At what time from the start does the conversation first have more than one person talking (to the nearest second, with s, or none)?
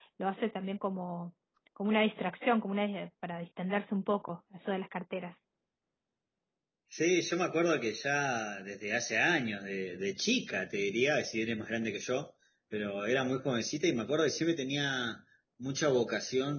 none